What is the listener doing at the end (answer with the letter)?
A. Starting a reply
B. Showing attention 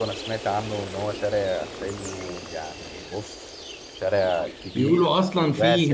A